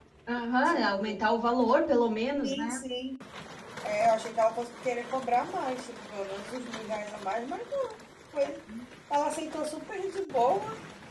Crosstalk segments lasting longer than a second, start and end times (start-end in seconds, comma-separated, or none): none